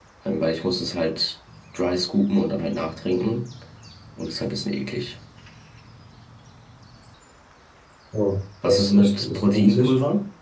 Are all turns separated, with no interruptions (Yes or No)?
No